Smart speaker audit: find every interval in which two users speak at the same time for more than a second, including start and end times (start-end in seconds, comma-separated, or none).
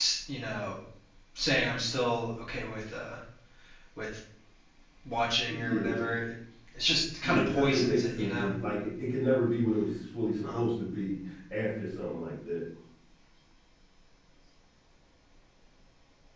7.2-8.5